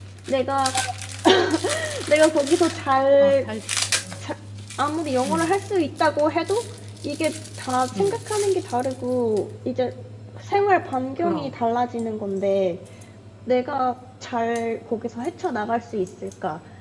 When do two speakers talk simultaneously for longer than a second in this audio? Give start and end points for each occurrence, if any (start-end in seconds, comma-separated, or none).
none